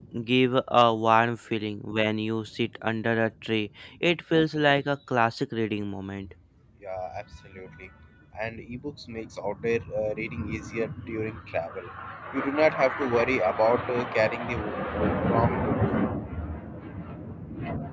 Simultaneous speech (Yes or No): No